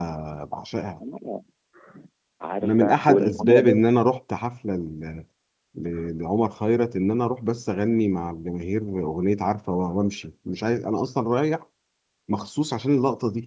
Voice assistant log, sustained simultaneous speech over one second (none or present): present